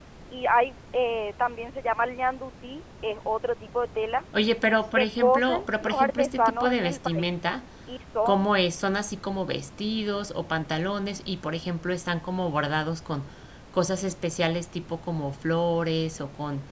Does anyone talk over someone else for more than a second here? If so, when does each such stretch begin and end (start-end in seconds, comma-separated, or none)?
4.9-7.3